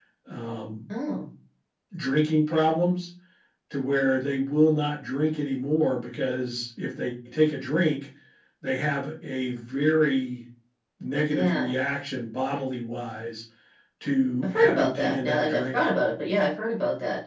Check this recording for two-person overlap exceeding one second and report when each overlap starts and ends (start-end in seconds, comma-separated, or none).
14.4-15.8